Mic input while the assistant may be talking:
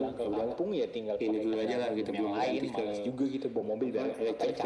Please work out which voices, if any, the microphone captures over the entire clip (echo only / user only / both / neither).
echo only